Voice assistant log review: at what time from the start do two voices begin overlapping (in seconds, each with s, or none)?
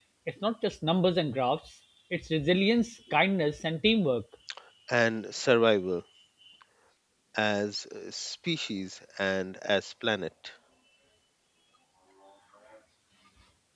none